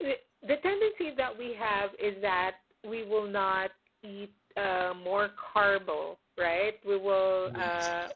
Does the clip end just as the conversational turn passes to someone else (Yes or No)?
No